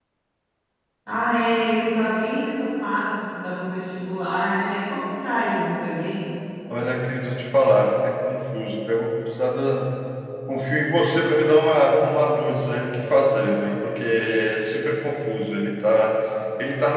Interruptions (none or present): none